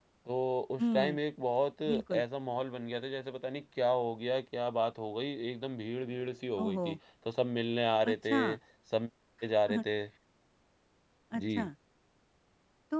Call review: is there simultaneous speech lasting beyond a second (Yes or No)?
No